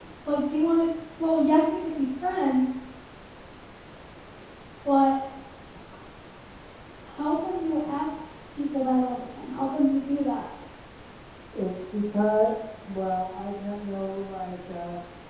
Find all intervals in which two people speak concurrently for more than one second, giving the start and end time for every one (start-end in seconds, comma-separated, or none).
none